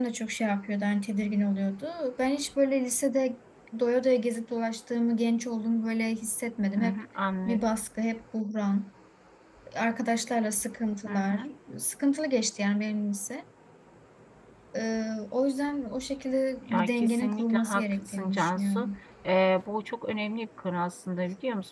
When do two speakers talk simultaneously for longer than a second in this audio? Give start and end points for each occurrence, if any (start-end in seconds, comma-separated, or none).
16.7-18.9